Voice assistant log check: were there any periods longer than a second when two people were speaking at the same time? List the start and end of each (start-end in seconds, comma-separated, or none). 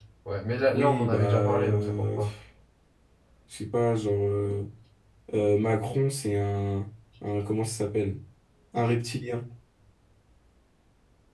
0.7-2.3